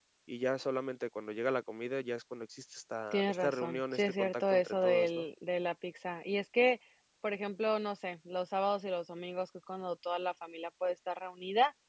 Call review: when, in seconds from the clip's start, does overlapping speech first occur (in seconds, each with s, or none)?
3.1 s